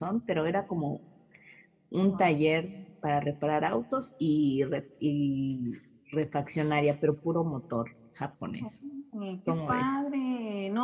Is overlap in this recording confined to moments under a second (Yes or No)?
Yes